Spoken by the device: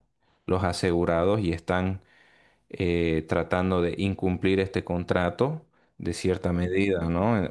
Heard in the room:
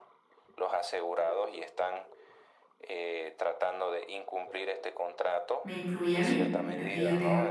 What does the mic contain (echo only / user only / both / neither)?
both